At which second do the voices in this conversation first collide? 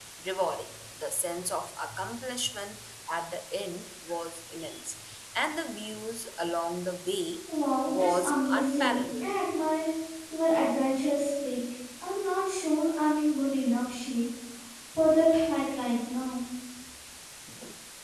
7.9 s

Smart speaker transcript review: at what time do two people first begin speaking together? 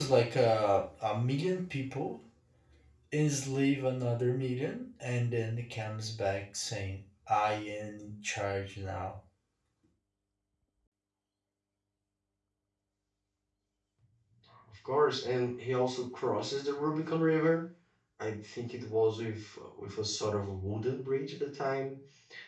none

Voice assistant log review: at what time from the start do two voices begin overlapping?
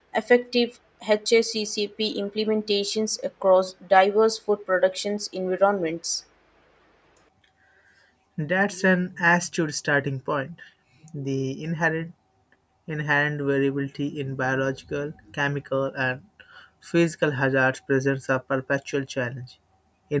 none

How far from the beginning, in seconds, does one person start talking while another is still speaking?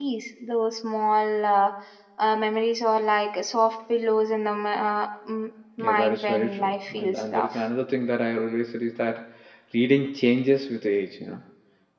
5.8 s

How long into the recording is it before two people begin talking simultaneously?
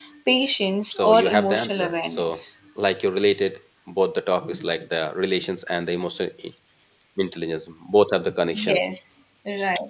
0.9 s

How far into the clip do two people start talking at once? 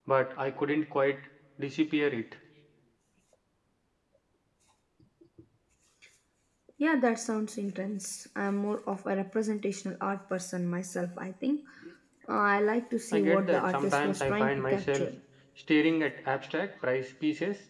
13.1 s

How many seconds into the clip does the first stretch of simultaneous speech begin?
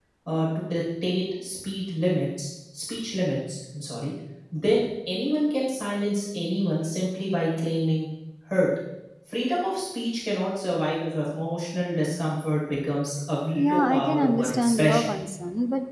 13.6 s

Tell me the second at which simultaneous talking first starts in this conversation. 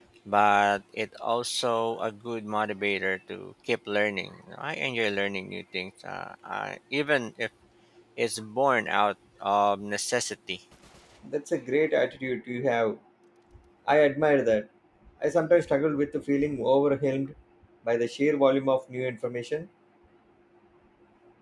none

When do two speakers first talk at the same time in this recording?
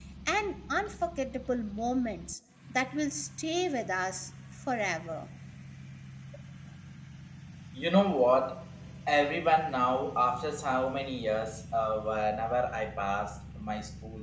none

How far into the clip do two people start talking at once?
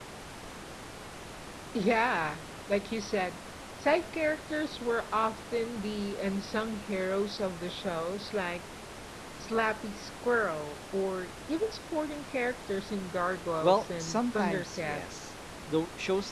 13.6 s

